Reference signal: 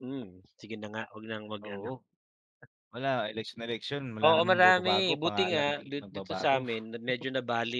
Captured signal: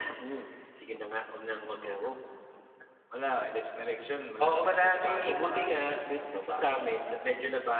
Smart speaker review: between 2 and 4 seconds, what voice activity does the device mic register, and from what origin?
echo only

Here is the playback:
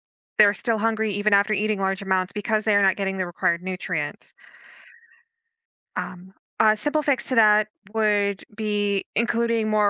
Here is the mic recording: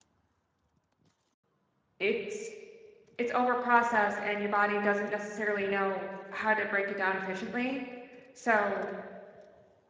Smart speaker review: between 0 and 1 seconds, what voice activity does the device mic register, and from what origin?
neither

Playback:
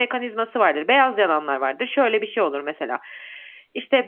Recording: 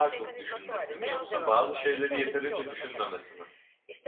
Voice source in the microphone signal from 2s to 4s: both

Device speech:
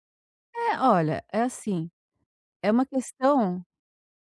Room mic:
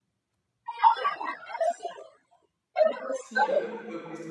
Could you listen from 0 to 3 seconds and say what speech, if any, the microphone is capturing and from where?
echo only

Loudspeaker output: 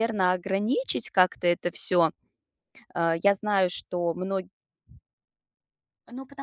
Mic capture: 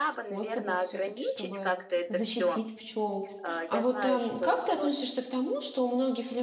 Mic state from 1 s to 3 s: both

